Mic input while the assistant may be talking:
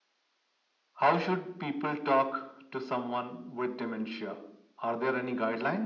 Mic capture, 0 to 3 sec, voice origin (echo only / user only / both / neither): echo only